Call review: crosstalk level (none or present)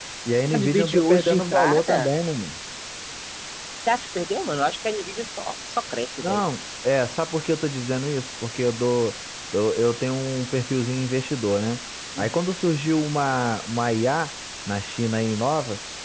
present